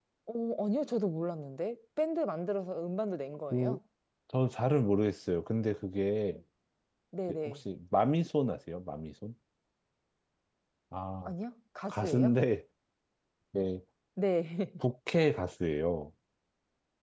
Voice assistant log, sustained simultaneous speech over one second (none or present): none